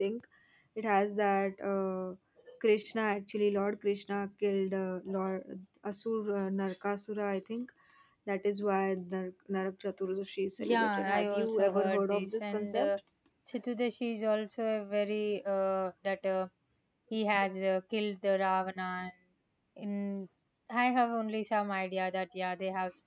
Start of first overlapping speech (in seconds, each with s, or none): 10.6 s